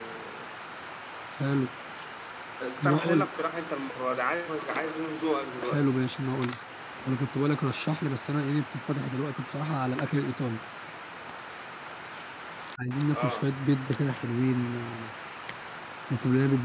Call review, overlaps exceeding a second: none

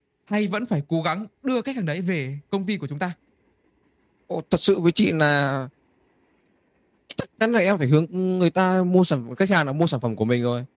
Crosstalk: none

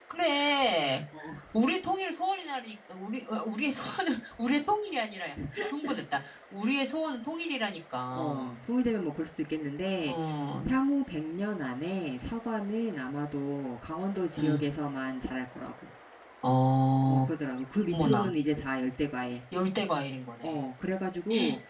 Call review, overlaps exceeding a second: none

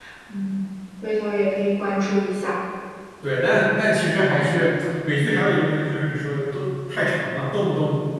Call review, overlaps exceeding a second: none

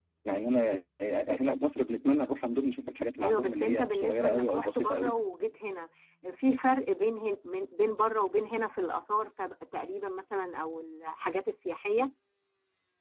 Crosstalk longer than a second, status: present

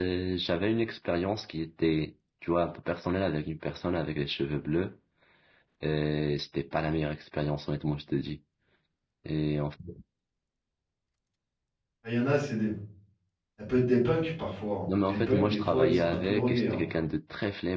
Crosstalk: present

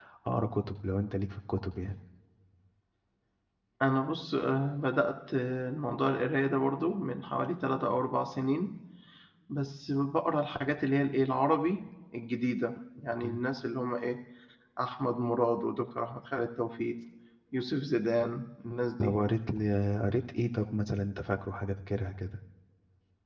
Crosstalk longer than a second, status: none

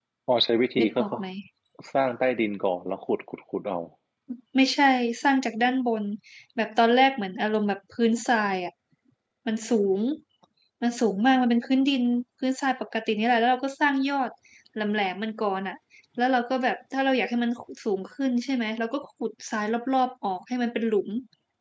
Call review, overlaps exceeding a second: none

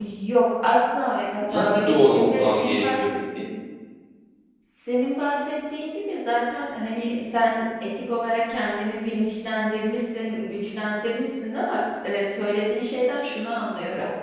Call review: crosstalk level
present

